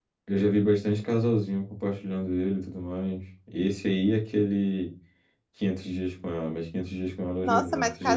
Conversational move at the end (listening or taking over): taking over